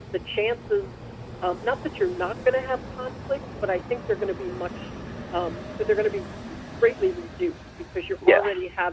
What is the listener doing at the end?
listening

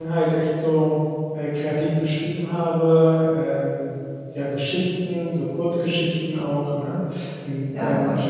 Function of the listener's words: taking over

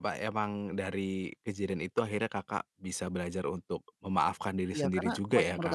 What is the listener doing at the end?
taking over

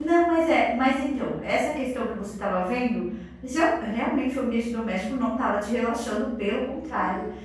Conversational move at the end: listening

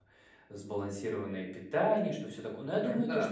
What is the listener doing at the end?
listening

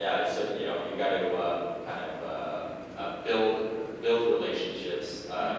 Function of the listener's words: listening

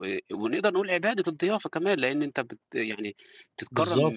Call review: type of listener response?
listening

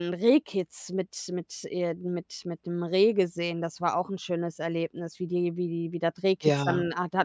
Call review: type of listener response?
listening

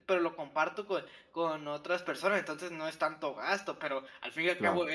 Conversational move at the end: listening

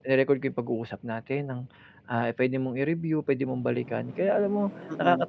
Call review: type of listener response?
listening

